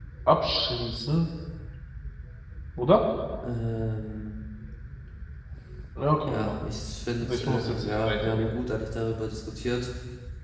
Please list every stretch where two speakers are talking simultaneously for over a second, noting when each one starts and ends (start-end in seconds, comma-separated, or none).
7.3-8.5